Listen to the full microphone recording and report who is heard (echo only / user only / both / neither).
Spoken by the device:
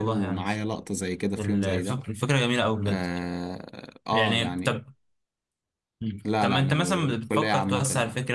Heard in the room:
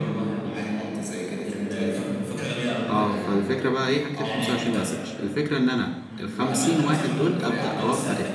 both